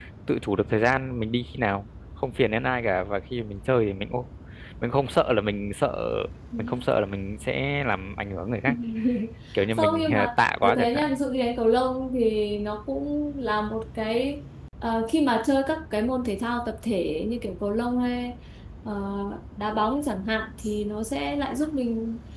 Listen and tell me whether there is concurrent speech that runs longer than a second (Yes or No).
Yes